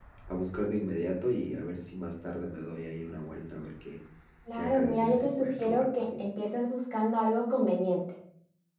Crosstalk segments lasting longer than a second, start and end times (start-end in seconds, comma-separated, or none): 4.5-6.2